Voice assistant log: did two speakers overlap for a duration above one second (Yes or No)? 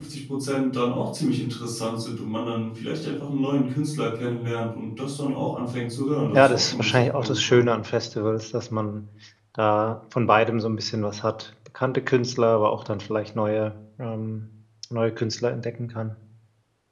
Yes